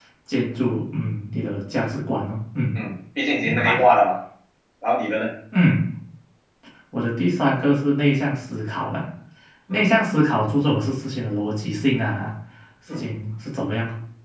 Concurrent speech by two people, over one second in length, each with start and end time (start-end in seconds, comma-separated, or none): none